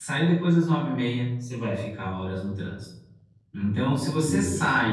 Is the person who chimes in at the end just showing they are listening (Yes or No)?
Yes